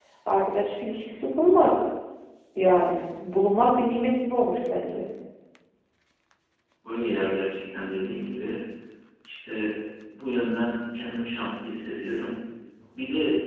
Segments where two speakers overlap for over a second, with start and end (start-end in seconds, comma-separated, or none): none